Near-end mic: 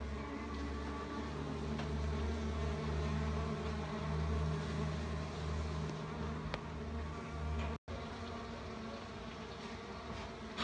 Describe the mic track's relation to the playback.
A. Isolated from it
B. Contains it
A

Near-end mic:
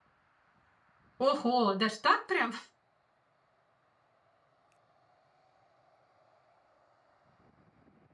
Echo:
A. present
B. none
B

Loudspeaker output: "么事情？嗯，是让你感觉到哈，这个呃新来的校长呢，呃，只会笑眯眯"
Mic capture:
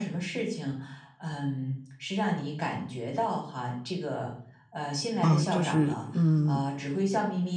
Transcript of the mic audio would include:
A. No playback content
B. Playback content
B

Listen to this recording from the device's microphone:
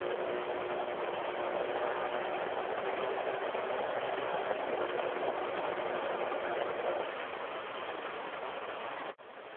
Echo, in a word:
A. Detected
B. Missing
B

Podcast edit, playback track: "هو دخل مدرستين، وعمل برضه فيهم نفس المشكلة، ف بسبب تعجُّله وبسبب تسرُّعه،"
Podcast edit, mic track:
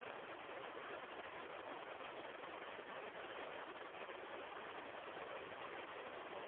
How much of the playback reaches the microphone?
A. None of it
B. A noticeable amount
A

